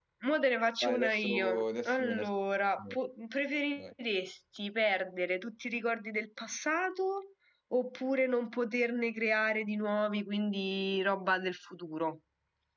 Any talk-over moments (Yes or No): Yes